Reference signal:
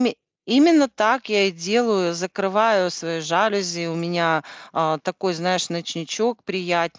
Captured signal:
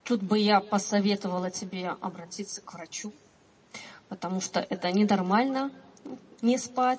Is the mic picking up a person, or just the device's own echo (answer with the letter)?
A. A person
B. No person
A